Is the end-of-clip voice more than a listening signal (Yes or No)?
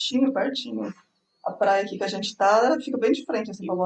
Yes